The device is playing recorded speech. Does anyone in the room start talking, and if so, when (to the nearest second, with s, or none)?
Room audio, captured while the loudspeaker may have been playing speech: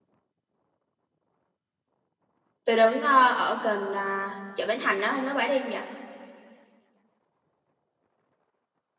3 s